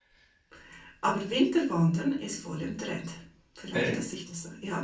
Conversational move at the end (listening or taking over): listening